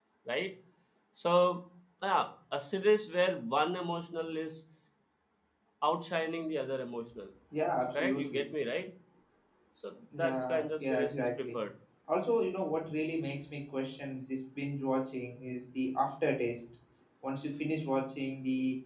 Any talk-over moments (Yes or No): Yes